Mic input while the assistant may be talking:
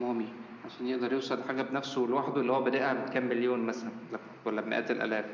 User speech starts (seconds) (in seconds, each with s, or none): none